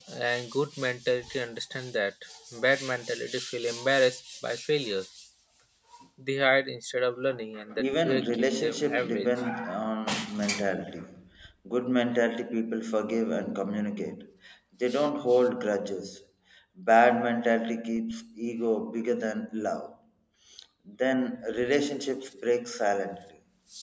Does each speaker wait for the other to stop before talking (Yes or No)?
No